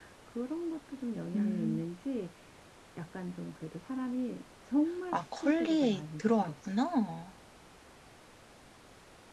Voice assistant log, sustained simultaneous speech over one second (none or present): present